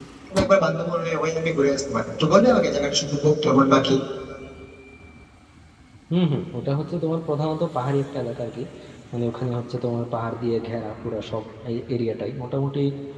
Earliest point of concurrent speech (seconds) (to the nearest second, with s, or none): none